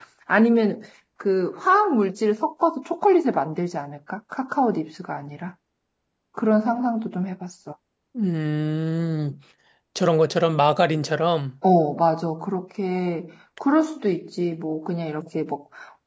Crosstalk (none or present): none